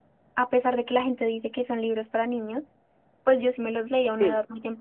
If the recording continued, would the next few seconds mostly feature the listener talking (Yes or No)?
No